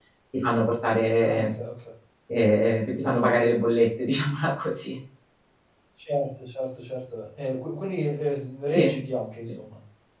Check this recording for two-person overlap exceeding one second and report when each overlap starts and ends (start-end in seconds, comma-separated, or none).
none